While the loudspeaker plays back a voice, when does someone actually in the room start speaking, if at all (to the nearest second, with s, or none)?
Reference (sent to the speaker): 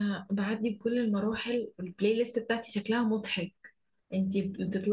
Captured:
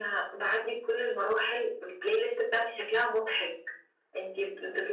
none